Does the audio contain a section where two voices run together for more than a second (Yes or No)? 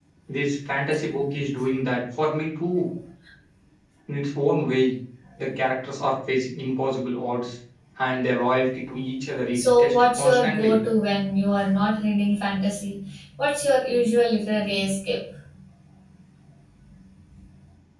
Yes